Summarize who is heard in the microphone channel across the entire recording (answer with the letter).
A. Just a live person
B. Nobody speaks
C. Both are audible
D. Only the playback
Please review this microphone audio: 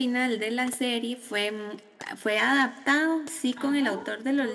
C